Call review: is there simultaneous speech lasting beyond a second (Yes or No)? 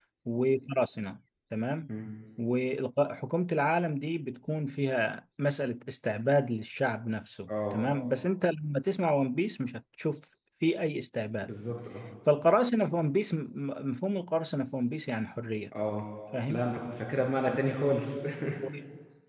No